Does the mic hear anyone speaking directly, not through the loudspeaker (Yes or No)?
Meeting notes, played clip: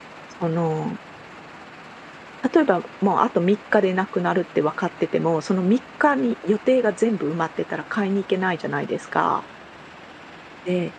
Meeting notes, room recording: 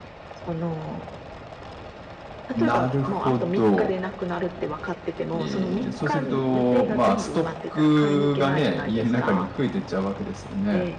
Yes